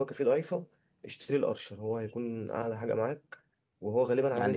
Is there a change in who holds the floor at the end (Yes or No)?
Yes